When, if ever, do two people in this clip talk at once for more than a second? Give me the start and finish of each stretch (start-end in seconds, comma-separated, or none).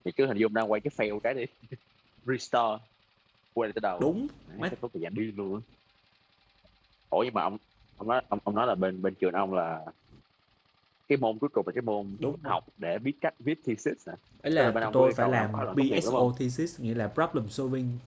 14.6-16.3